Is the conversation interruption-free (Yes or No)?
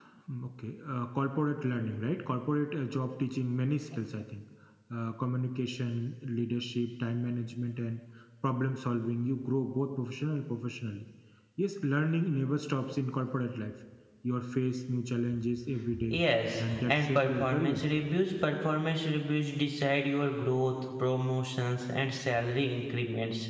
No